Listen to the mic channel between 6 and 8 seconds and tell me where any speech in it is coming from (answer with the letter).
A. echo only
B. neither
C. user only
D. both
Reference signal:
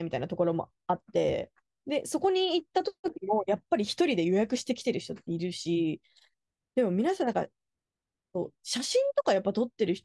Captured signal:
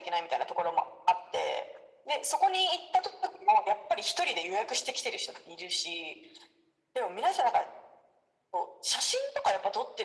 A